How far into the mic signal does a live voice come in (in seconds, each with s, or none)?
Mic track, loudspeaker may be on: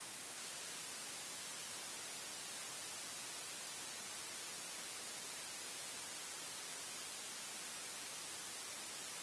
none